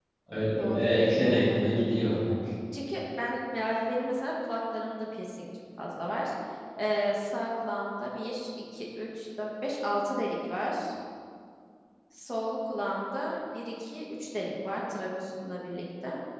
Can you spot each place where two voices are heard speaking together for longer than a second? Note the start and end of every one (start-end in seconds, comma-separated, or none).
0.6-2.2